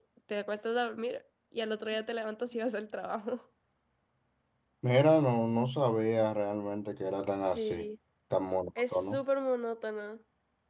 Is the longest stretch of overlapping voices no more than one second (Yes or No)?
Yes